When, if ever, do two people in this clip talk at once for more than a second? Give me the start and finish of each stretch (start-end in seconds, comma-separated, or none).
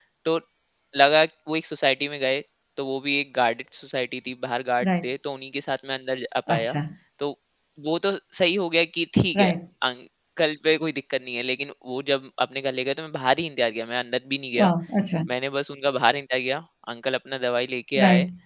none